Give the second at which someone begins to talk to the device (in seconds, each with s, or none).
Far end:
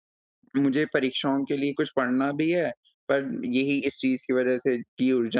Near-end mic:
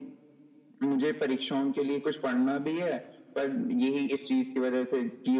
none